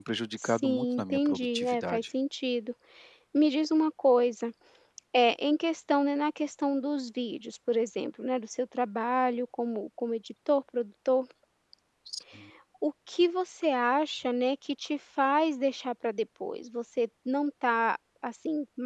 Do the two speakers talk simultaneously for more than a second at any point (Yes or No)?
Yes